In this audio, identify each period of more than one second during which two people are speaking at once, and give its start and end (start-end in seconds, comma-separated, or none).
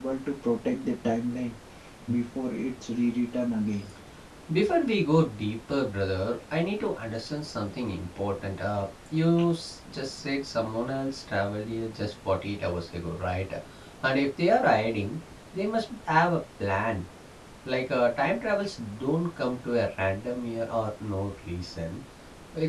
none